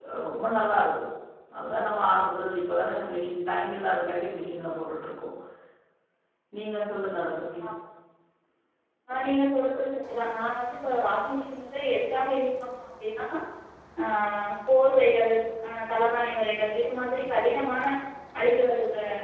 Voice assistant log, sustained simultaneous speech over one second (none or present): none